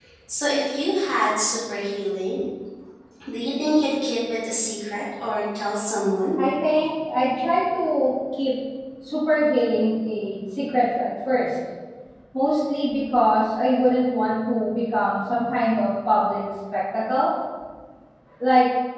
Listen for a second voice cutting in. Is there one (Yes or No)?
No